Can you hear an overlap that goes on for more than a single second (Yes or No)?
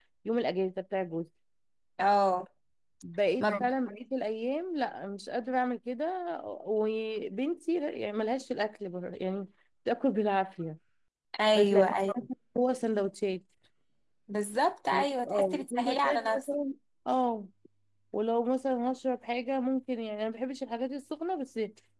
Yes